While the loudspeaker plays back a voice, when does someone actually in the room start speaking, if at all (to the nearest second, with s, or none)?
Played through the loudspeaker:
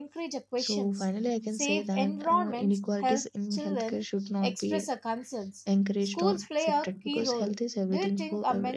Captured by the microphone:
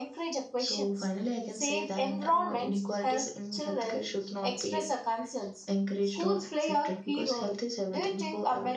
none